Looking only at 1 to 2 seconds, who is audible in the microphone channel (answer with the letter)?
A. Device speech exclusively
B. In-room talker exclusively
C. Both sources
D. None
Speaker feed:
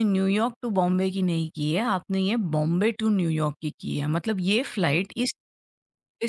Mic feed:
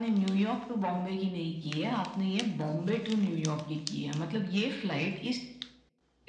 A